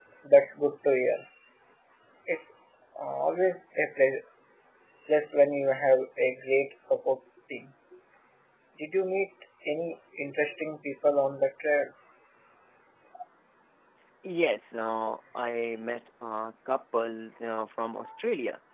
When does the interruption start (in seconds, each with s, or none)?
none